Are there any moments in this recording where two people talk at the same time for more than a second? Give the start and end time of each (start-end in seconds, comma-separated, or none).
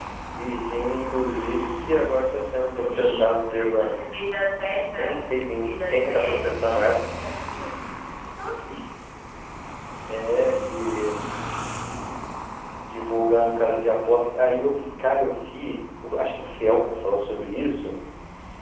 2.8-4.0, 4.9-7.0